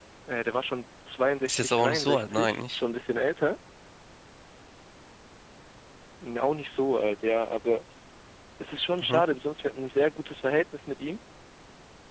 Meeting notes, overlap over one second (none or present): present